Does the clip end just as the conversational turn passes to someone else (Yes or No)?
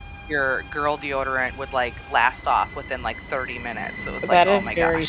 Yes